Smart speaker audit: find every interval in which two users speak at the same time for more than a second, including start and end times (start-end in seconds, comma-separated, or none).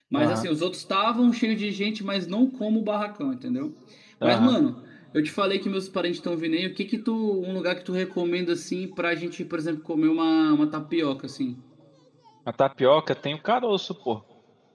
none